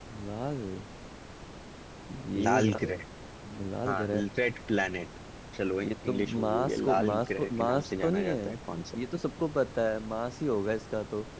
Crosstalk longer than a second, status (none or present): present